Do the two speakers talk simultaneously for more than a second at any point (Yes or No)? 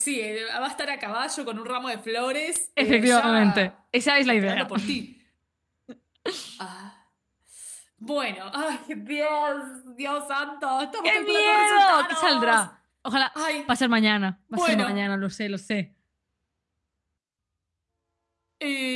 Yes